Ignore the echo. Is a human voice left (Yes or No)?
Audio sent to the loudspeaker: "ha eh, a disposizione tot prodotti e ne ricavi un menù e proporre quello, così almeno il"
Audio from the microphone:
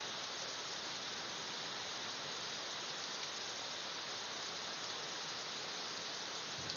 No